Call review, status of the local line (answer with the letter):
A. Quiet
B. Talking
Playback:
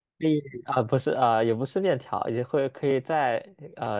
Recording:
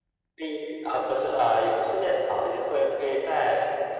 A